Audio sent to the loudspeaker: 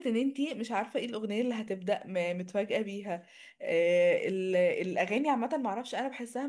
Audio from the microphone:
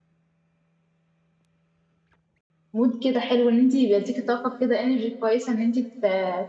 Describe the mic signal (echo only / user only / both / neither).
user only